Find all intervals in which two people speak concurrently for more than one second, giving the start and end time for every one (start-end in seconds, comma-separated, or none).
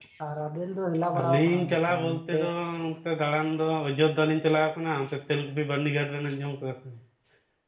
1.2-2.4